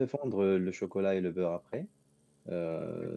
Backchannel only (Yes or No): Yes